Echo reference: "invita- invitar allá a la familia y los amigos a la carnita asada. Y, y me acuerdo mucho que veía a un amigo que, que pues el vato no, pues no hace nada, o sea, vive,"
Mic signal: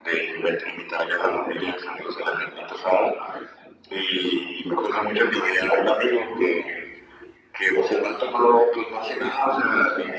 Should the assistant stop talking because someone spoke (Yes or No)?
No